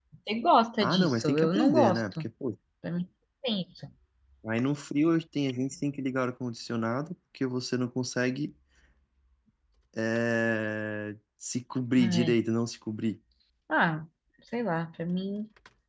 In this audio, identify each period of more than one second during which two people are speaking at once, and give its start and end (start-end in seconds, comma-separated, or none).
0.8-2.2